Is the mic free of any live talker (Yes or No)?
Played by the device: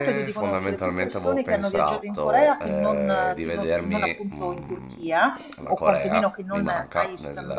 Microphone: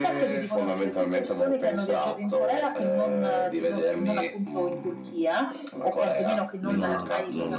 No